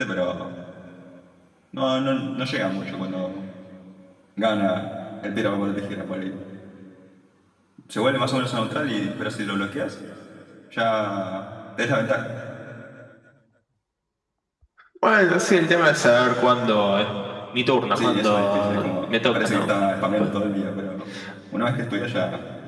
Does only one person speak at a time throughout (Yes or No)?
No